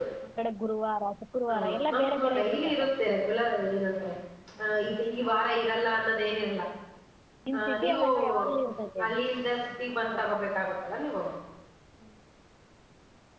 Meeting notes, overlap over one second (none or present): present